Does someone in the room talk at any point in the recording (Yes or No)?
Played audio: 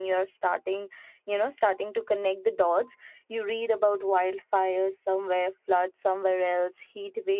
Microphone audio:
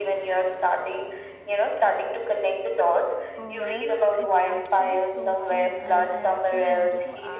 Yes